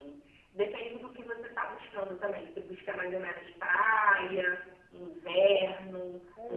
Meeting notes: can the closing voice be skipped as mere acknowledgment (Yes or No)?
No